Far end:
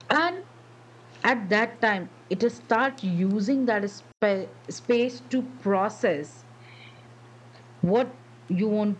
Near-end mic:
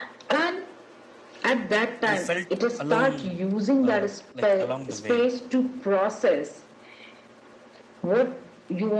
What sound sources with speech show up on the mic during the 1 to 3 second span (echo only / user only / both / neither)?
both